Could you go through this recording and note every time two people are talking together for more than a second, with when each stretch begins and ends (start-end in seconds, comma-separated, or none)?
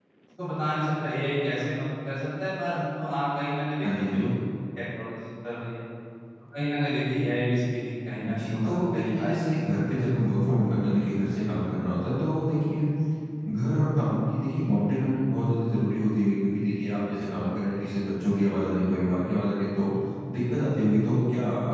8.3-9.5